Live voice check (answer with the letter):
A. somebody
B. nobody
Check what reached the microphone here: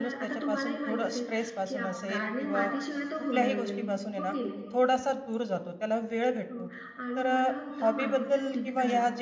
A